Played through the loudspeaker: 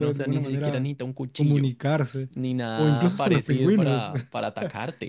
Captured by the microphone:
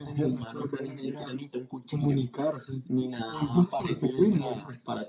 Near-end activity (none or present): none